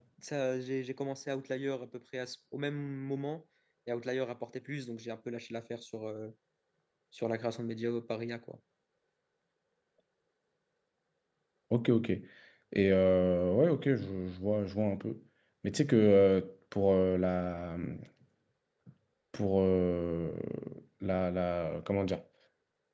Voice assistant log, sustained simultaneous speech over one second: none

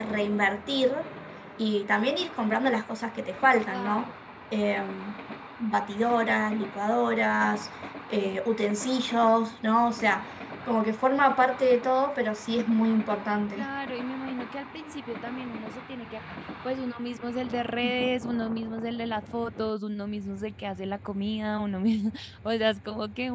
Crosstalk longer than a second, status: none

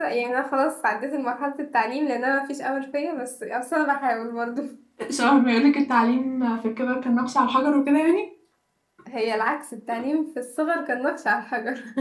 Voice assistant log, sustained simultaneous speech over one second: none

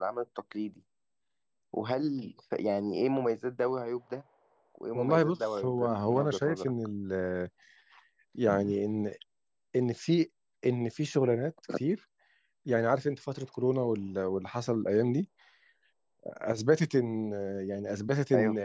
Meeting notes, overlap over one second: present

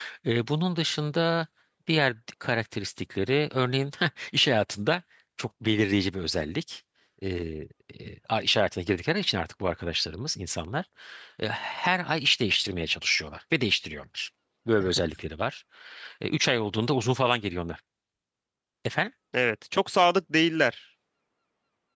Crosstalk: none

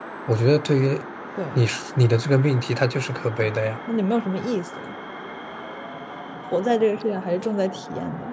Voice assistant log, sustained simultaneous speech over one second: none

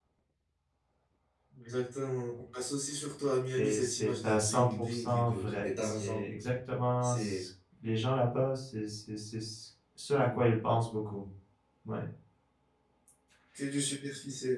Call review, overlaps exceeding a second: present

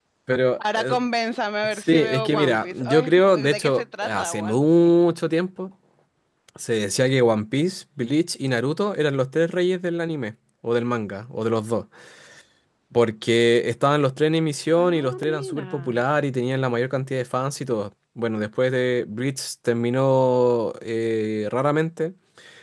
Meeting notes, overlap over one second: present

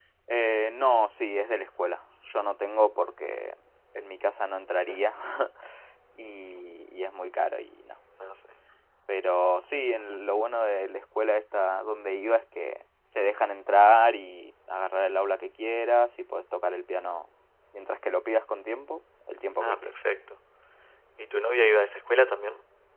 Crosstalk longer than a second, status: none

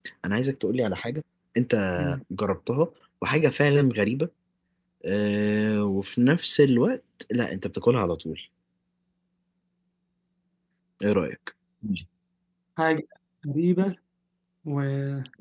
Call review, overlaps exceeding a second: none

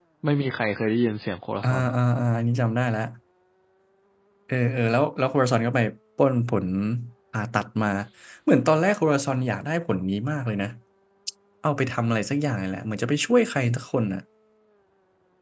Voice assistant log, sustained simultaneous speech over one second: none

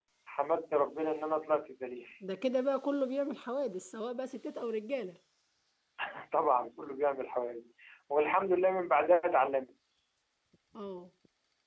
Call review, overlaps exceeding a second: none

